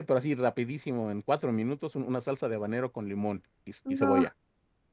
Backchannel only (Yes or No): Yes